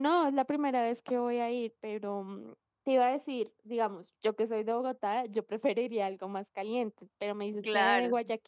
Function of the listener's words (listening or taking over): listening